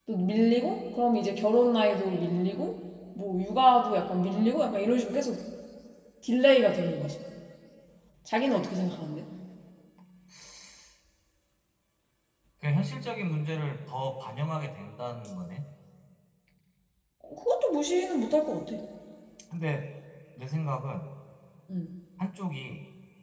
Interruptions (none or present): none